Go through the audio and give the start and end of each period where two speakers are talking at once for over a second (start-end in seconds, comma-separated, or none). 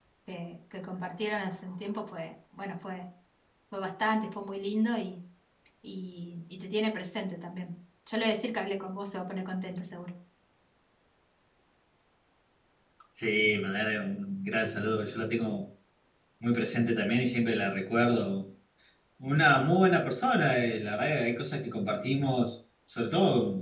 none